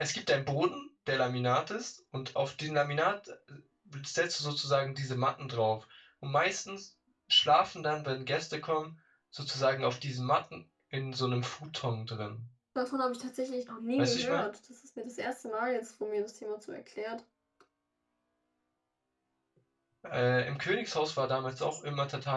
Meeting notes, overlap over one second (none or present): none